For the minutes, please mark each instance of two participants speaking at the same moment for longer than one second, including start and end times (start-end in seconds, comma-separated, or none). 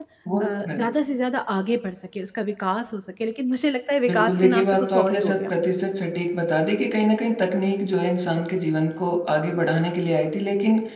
4.1-5.5